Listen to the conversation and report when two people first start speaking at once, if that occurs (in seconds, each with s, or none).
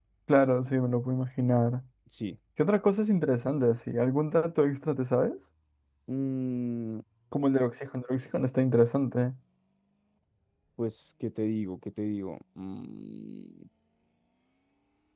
none